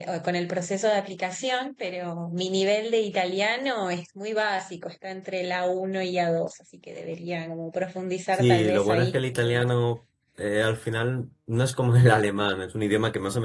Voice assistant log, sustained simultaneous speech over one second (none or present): present